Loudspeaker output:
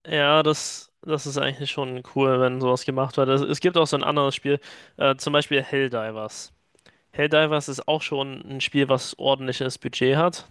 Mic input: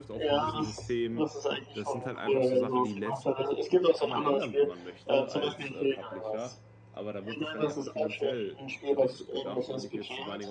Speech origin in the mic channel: both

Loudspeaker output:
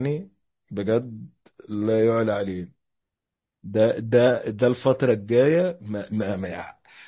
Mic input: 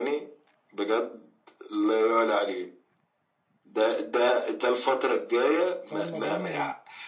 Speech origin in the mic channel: both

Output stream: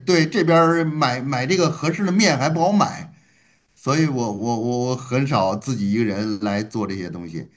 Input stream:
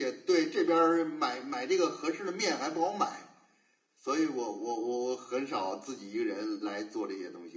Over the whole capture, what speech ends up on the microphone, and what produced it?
echo only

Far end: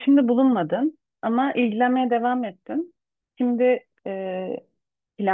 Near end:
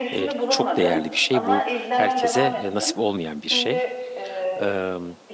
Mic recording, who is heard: both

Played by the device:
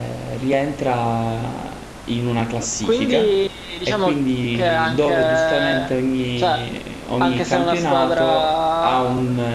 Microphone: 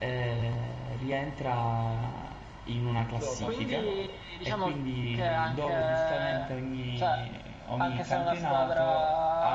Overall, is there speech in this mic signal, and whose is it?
both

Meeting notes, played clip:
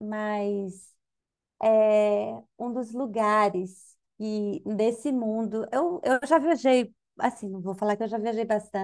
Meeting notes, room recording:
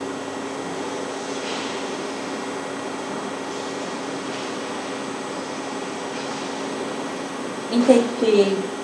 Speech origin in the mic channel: user only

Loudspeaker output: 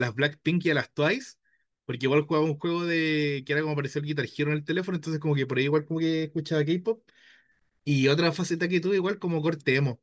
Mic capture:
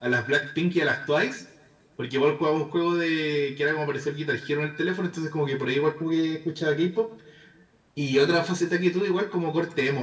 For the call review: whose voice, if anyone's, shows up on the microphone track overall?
echo only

